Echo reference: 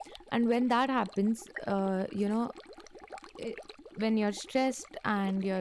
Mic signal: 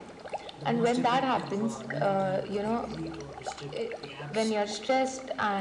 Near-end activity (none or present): present